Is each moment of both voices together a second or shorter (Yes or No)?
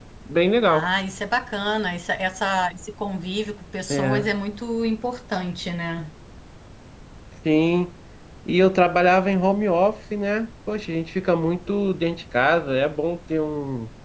Yes